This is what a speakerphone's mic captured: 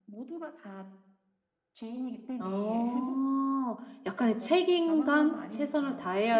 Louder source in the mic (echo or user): user